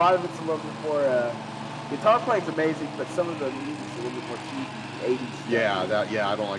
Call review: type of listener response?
taking over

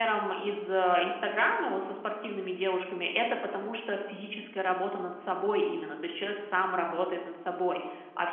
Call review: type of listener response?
listening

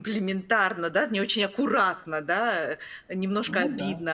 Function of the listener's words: listening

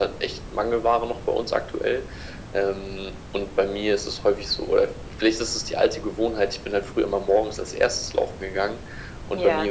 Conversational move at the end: listening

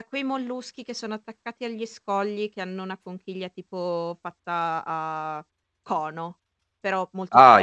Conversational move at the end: taking over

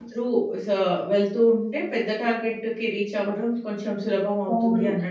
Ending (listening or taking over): taking over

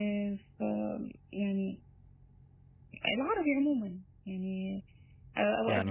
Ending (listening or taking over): listening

